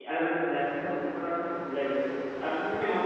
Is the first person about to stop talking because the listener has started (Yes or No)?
No